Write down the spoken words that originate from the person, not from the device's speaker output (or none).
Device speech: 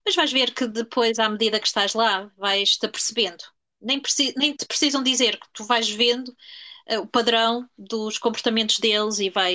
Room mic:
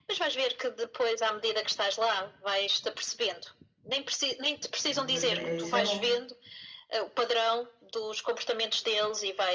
Eu, Mas é, isso é bom.